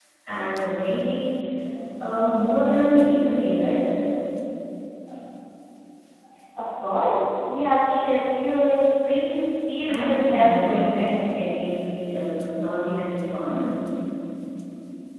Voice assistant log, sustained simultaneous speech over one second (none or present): present